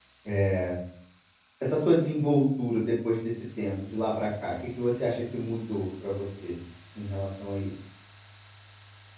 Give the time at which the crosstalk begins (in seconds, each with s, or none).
none